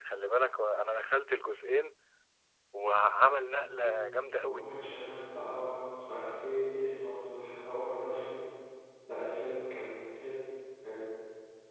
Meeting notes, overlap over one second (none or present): none